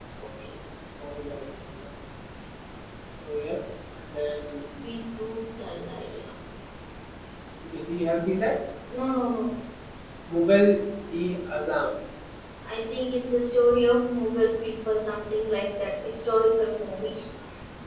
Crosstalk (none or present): none